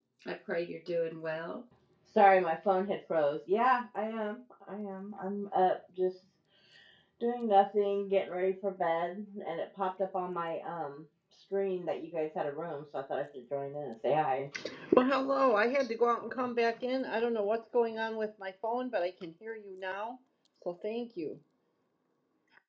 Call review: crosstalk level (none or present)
none